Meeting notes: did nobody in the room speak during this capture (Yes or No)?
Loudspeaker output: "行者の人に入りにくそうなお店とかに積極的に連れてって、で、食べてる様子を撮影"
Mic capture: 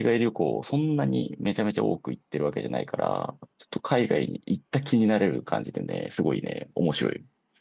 No